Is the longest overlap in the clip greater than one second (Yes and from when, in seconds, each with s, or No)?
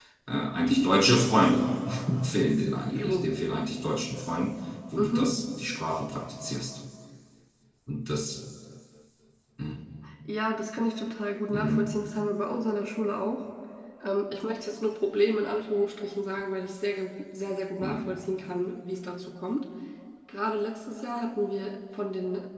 No